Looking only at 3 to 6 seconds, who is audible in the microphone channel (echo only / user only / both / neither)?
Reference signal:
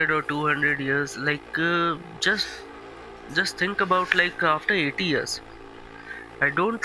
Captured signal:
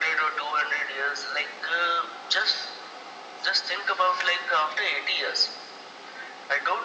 echo only